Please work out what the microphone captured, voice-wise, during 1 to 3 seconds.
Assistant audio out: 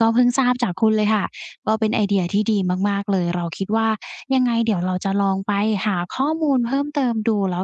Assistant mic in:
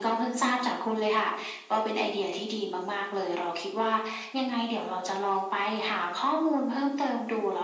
echo only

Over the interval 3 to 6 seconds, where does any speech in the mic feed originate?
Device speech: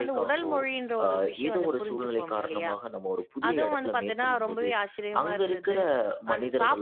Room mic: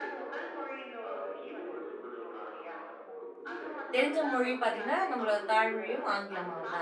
both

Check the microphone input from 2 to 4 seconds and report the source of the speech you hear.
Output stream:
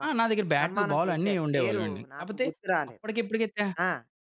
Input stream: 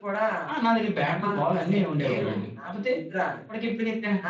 echo only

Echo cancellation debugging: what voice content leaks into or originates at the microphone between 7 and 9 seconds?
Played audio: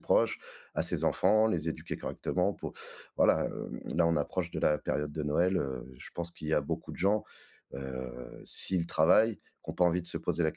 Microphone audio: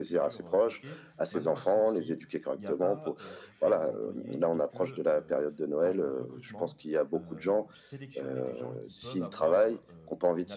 both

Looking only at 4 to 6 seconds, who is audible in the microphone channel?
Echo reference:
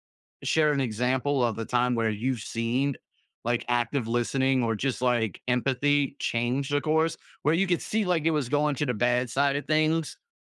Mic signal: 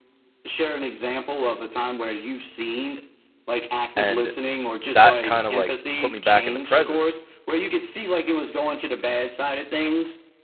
both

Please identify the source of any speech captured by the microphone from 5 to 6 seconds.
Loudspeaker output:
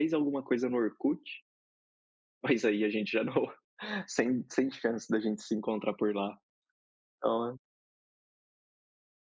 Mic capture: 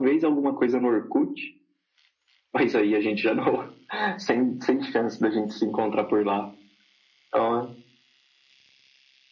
echo only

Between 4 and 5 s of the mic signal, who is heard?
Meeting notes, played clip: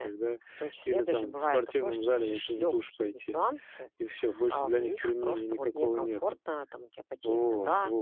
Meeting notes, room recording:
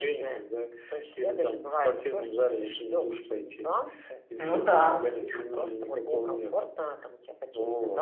both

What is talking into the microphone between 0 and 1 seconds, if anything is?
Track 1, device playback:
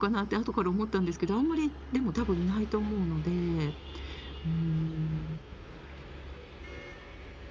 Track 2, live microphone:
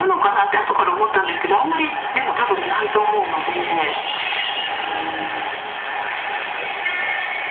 echo only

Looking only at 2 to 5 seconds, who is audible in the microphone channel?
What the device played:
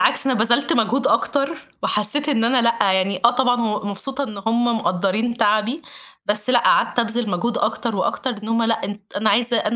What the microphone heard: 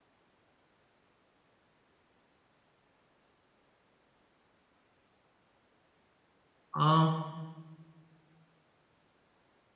neither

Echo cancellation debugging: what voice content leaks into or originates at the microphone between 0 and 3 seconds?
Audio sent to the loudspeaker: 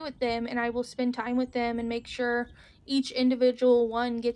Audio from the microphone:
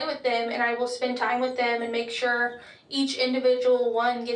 echo only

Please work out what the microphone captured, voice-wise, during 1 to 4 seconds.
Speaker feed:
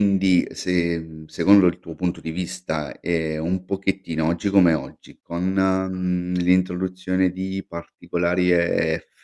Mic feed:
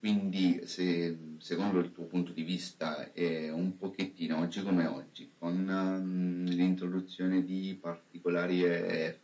echo only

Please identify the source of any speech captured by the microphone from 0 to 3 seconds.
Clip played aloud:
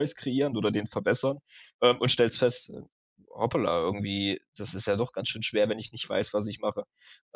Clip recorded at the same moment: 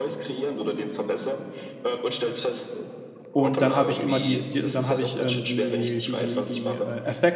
echo only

